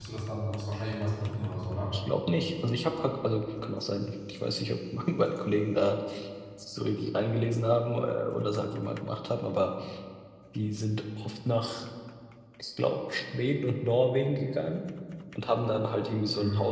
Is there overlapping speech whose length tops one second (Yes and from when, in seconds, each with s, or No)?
No